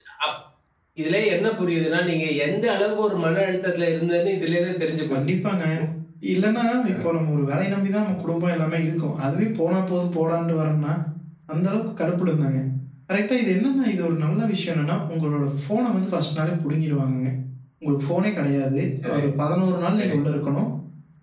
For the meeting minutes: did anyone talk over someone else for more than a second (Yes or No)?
No